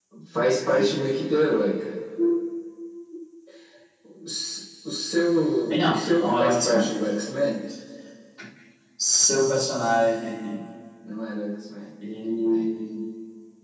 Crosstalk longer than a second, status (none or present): present